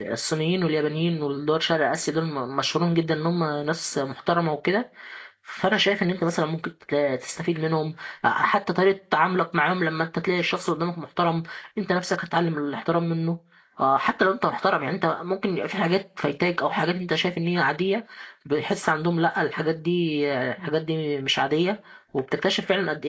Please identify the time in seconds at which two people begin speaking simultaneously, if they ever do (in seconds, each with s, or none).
none